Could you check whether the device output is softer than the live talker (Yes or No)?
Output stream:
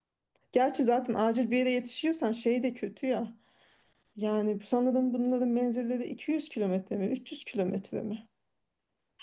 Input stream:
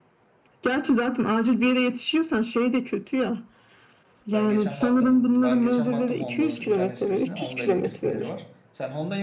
No